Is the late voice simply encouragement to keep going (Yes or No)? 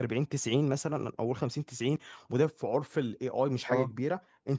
Yes